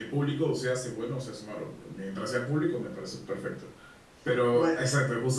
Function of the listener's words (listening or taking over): listening